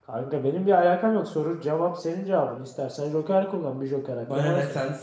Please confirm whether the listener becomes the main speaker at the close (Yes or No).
Yes